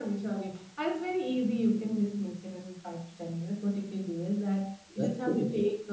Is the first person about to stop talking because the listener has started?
No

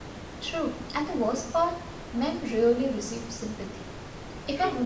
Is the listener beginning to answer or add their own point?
No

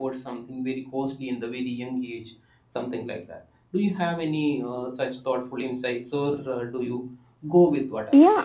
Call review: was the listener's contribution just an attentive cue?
No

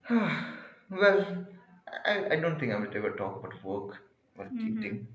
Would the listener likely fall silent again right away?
Yes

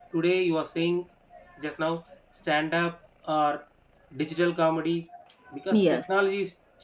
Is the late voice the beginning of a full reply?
No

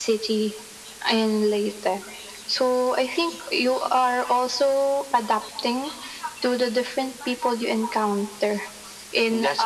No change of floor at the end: Yes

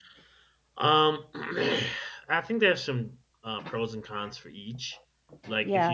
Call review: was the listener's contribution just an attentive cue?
Yes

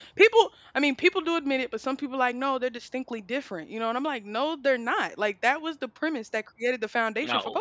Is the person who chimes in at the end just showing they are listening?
Yes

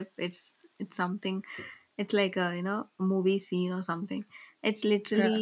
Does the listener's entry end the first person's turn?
No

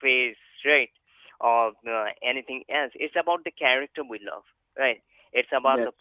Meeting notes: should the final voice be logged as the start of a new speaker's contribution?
No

